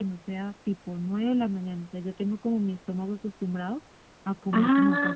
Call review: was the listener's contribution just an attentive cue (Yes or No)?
No